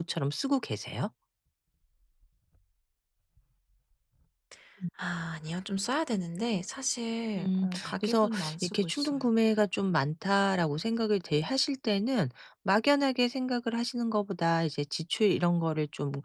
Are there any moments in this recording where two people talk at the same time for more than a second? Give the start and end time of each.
7.4-9.3

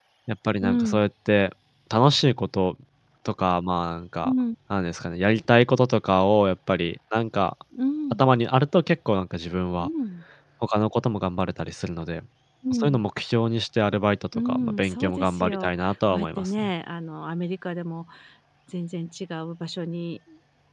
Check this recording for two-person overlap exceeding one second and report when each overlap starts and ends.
14.3-16.7

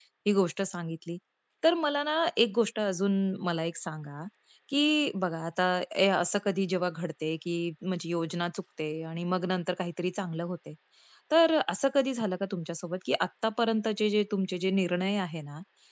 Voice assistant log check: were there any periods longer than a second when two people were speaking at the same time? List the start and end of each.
none

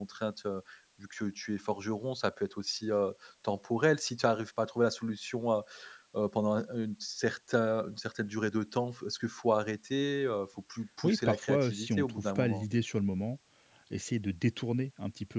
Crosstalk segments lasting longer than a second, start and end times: 11.0-12.6

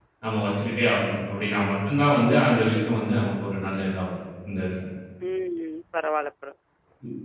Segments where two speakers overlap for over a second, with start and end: none

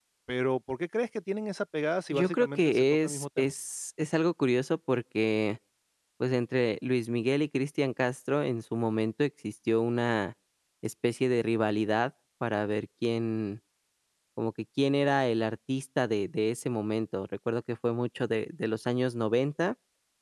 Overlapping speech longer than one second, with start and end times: 2.1-3.5

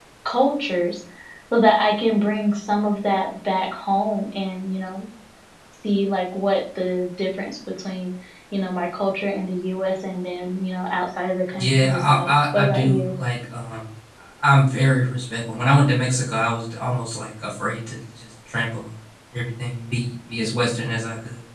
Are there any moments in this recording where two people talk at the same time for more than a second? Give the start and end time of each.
11.6-13.1

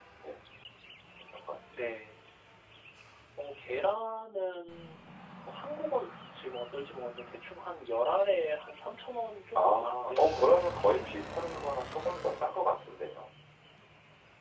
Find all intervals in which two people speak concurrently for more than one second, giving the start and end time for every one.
9.6-11.1

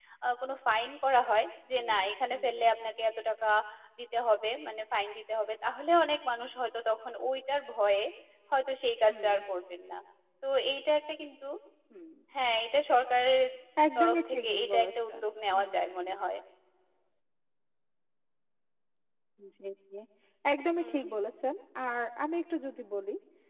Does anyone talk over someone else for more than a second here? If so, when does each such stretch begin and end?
14.0-15.8

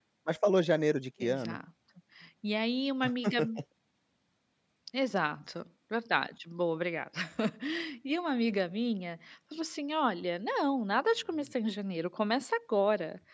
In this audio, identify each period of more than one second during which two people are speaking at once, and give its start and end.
none

